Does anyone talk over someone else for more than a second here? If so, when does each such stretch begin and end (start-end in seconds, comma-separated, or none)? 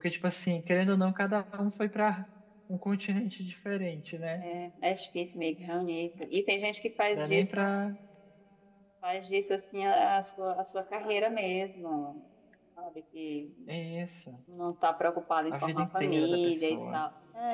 15.5-17.0